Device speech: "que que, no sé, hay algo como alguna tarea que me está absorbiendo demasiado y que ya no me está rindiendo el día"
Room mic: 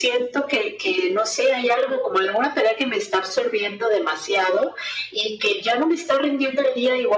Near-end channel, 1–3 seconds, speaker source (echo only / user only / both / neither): echo only